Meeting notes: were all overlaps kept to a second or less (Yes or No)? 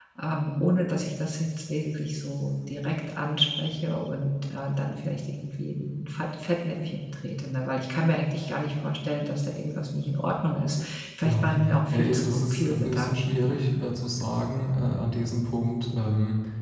No